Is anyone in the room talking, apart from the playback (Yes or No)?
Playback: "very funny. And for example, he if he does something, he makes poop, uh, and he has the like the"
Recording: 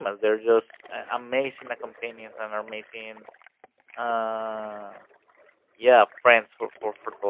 Yes